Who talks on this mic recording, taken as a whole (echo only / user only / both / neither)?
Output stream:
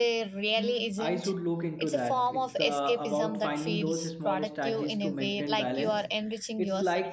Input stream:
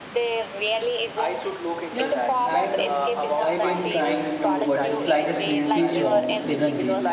both